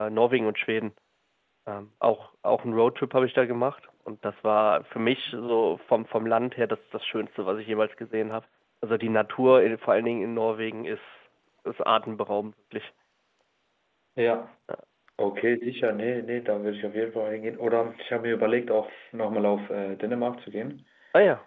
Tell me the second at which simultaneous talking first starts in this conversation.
none

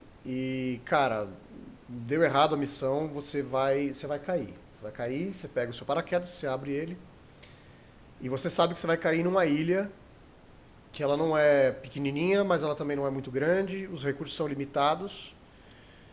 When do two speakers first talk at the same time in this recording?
none

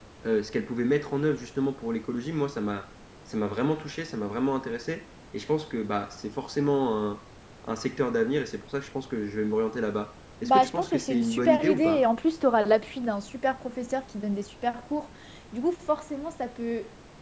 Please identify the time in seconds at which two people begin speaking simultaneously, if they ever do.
10.4 s

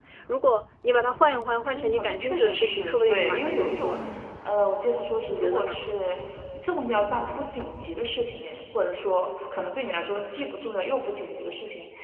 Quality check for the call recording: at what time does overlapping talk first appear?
1.7 s

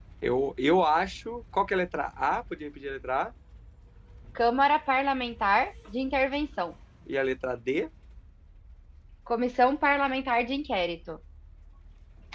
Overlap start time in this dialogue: none

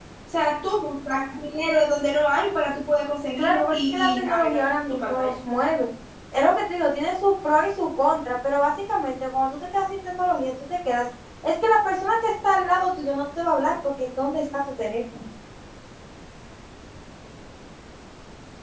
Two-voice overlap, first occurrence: 3.4 s

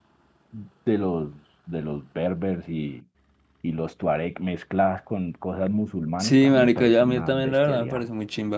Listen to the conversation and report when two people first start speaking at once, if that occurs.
6.2 s

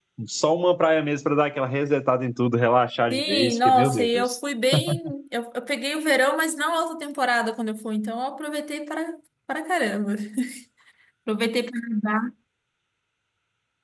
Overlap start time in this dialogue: 3.1 s

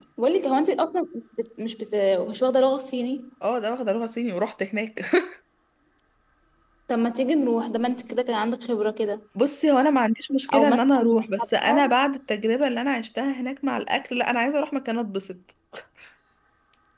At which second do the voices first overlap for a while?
10.5 s

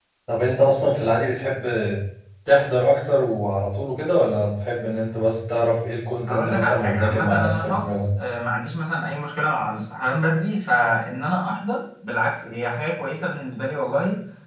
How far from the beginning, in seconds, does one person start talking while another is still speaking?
6.3 s

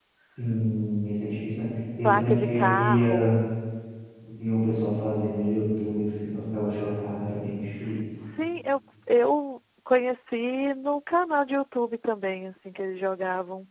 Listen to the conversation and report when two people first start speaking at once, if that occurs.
2.0 s

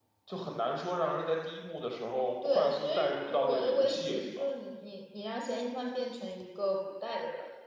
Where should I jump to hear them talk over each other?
2.4 s

